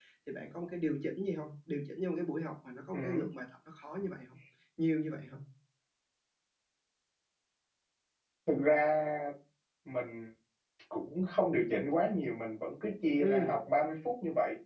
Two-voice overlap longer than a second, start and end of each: none

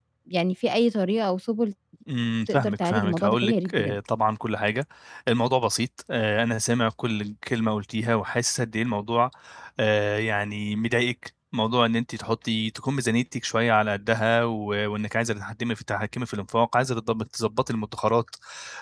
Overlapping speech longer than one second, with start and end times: 2.5-4.0

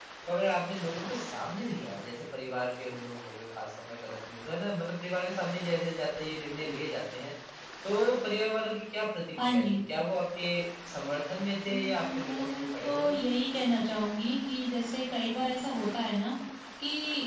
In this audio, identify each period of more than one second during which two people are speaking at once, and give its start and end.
11.7-13.2

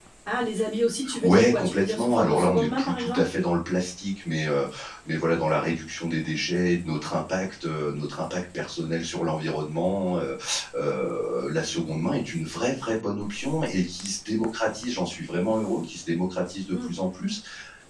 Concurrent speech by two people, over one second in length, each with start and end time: 1.2-3.3

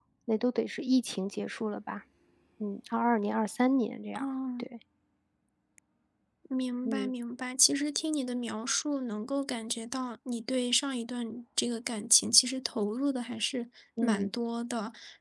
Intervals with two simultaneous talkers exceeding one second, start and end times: none

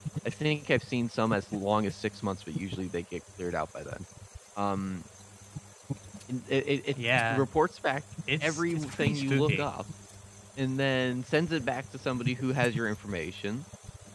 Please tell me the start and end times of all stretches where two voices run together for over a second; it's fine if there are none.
8.4-9.7

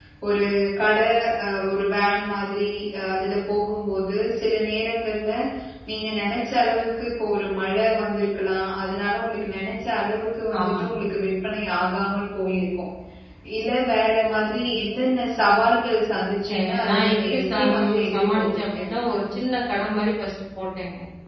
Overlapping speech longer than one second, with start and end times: 16.5-18.8

